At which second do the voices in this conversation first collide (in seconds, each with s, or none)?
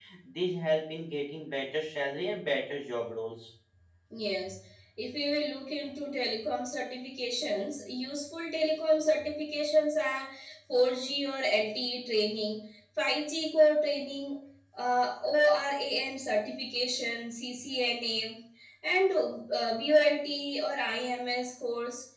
none